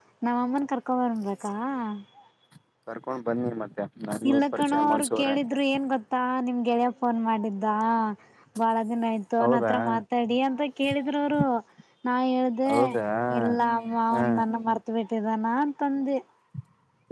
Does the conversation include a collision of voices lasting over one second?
Yes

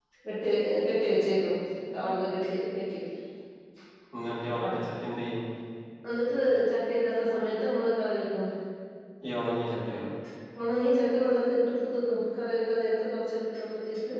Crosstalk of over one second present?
No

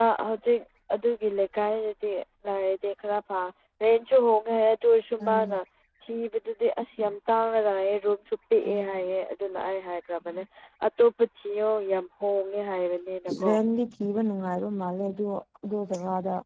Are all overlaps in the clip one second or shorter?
Yes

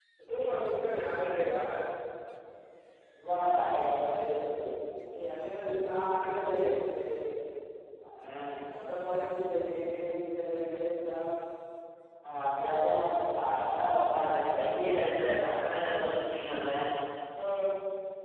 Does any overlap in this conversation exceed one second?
No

